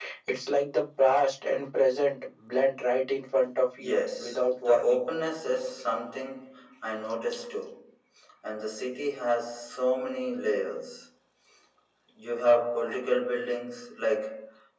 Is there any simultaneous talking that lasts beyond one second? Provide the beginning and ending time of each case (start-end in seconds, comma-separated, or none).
3.8-5.1